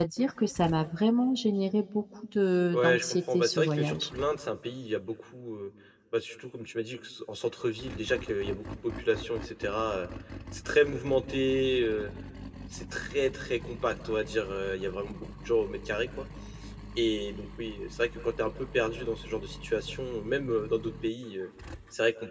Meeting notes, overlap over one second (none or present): present